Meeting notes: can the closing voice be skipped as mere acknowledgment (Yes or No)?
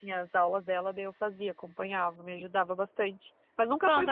No